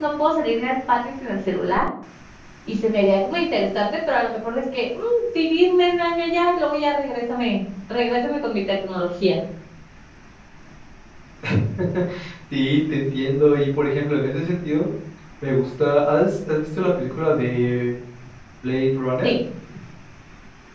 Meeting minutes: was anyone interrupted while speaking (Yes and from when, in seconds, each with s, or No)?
No